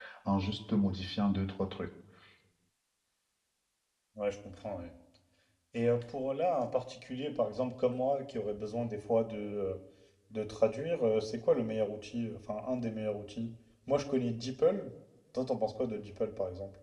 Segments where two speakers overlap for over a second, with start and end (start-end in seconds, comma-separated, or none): none